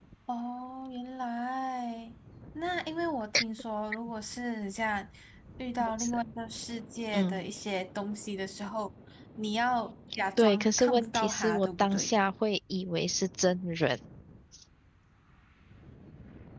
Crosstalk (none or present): present